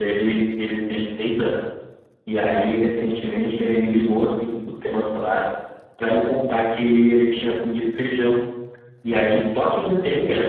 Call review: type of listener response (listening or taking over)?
listening